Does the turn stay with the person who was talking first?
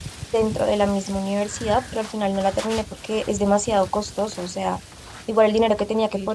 Yes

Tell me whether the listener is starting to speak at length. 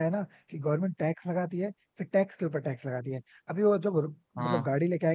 No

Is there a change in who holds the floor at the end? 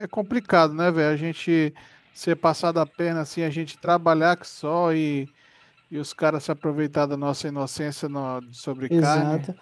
Yes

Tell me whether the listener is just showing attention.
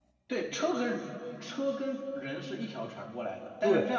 Yes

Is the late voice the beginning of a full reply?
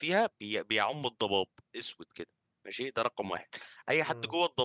No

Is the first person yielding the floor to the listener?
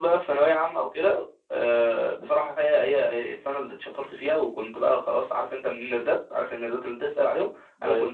No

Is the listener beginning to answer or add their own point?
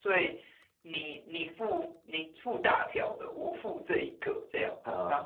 Yes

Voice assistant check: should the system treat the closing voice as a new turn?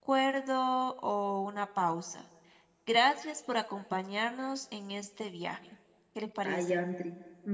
Yes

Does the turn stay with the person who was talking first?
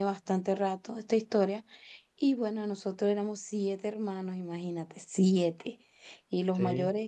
Yes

